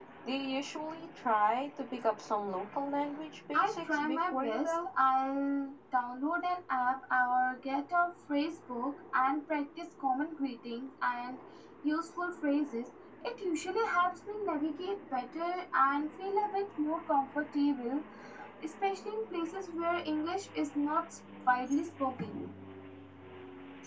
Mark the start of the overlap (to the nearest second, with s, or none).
4 s